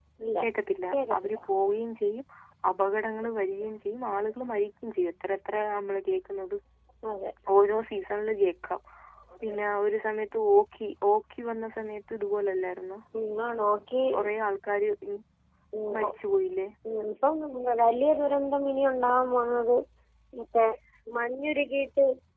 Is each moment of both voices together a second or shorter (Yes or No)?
Yes